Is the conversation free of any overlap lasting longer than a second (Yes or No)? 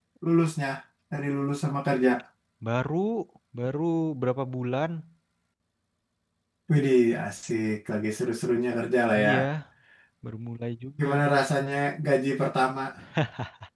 Yes